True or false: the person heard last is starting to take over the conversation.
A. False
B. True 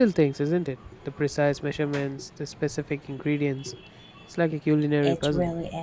B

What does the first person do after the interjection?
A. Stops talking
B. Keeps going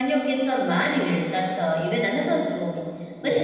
B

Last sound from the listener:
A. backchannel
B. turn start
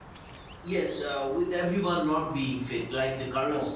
B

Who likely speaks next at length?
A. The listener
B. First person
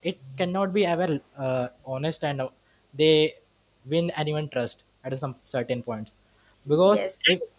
A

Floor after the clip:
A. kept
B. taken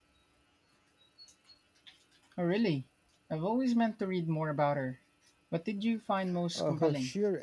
B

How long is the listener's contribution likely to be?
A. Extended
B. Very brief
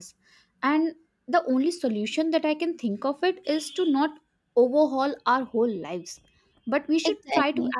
B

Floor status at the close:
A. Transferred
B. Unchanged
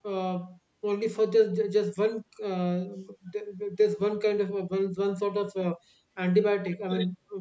A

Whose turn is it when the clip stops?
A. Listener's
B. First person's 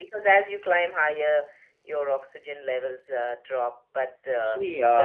A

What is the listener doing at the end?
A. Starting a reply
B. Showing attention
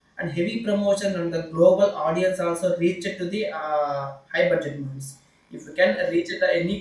B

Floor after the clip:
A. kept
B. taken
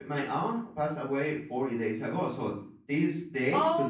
A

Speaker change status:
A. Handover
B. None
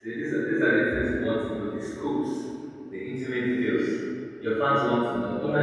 A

